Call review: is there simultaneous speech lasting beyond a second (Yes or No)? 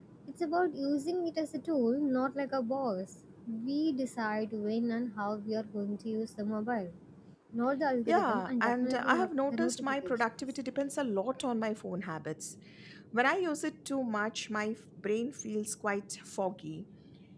Yes